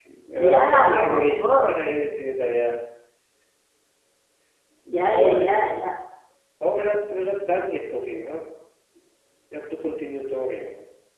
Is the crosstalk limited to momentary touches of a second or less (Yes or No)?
No